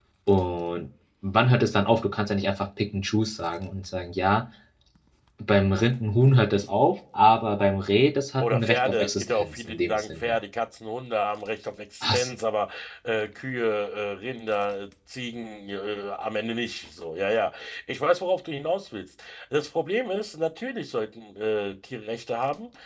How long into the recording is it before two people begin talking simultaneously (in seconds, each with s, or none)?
8.4 s